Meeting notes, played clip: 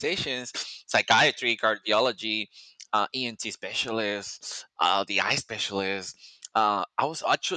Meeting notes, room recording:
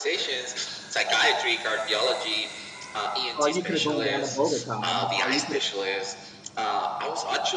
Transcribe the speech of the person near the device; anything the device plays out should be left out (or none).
Or you could have gone down to Bogota. and- Or you could have,